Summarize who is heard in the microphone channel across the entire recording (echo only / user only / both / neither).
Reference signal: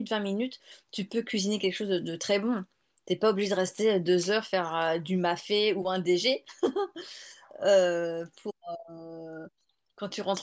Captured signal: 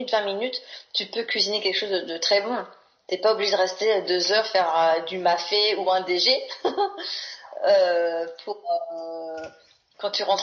echo only